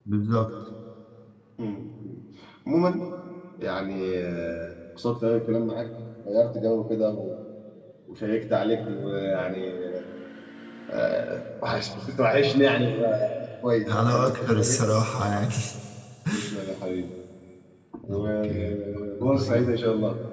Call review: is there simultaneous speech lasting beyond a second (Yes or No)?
Yes